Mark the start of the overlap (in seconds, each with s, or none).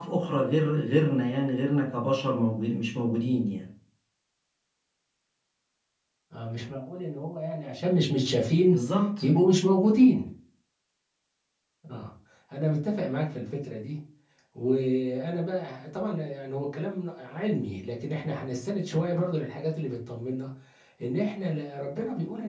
none